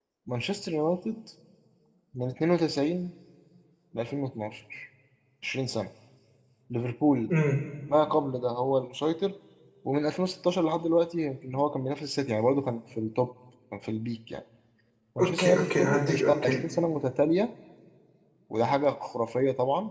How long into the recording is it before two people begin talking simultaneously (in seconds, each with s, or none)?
15.2 s